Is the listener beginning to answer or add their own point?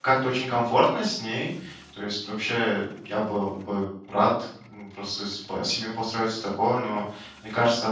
No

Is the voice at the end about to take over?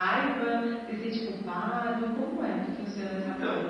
Yes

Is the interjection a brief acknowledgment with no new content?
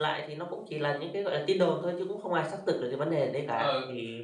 No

